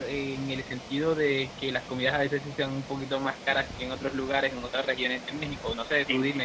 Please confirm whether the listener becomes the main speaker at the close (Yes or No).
Yes